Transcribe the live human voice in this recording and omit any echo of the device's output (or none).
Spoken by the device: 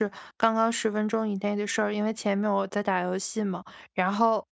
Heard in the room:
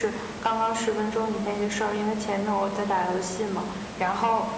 none